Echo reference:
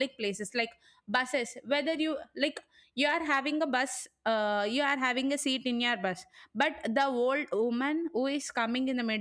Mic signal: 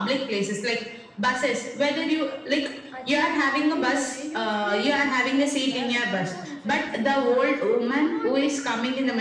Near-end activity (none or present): present